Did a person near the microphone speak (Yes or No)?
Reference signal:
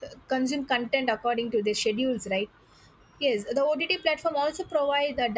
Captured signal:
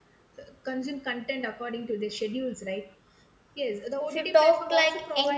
Yes